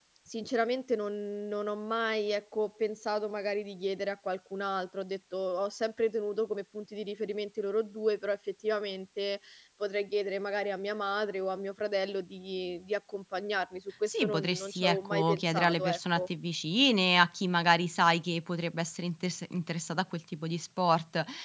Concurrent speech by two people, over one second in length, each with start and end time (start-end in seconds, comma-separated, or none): 14.1-16.2